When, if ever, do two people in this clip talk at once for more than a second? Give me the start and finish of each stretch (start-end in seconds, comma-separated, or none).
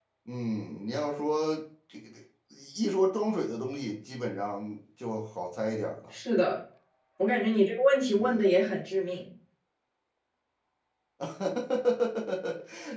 none